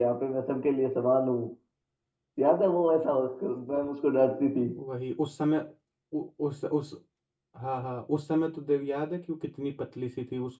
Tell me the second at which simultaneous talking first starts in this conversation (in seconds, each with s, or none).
none